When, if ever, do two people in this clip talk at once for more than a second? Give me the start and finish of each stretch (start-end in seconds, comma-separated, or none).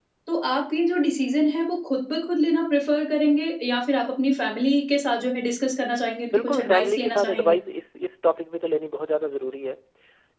6.3-7.5